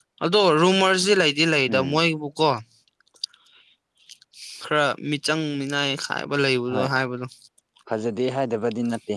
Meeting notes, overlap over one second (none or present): none